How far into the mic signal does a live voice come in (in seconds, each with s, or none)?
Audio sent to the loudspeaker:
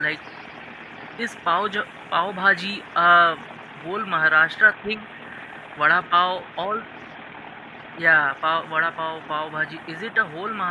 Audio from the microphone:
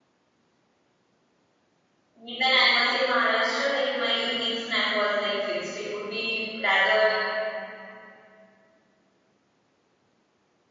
2.2 s